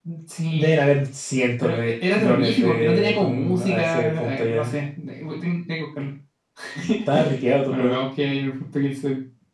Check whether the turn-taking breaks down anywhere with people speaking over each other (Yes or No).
Yes